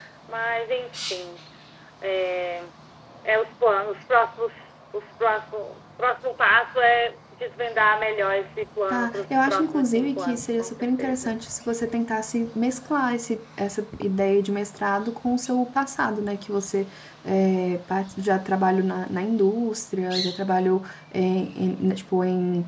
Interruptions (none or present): present